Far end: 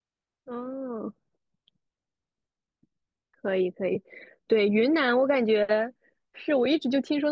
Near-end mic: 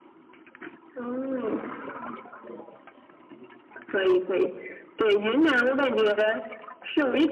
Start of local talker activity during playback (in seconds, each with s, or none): none